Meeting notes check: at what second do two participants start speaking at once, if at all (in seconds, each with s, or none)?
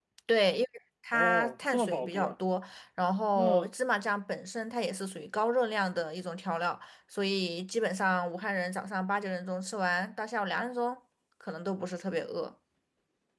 1.1 s